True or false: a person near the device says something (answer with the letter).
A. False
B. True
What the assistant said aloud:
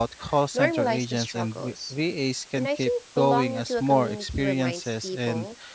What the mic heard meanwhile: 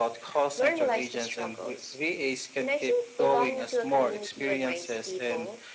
A